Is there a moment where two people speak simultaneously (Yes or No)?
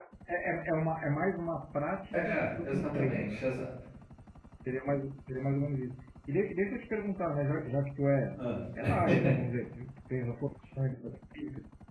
Yes